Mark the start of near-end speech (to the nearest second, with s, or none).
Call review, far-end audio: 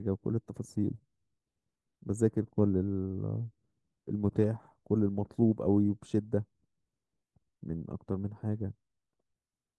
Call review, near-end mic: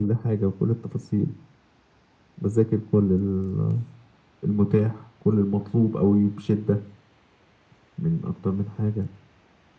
none